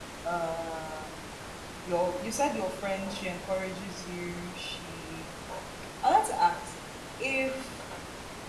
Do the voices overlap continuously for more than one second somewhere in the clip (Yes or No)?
No